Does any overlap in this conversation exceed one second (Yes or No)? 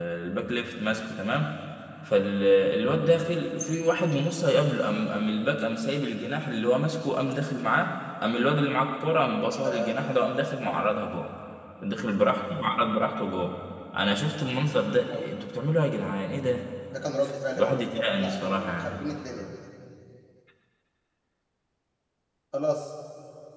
Yes